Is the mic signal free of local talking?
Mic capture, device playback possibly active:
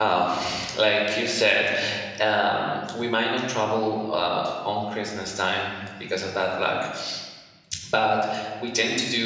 No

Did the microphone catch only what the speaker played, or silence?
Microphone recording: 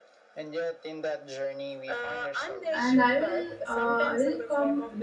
No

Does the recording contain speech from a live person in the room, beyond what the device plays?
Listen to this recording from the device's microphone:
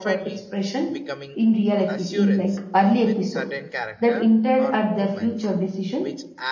Yes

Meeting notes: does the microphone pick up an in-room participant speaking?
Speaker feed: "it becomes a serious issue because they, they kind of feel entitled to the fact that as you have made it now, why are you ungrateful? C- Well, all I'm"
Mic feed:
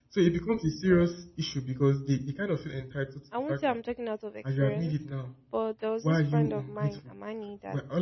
Yes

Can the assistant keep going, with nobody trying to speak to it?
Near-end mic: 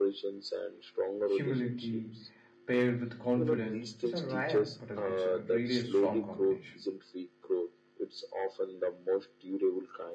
No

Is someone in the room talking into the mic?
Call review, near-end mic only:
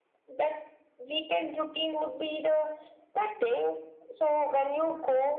No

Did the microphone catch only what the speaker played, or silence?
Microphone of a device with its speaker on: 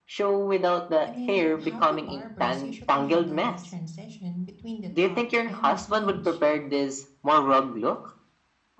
No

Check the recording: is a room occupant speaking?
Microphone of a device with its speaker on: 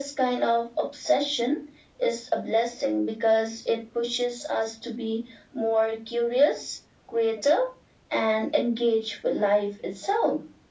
No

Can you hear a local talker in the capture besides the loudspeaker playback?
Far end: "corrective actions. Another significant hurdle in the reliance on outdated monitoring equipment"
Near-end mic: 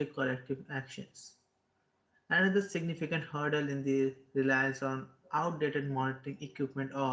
No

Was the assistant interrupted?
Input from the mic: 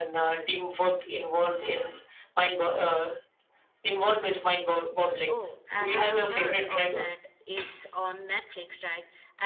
Yes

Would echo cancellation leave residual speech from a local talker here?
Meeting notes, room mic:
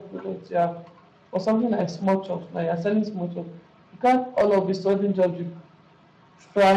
No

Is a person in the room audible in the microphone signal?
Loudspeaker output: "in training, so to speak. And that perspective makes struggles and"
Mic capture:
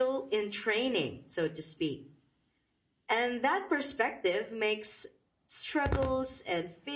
No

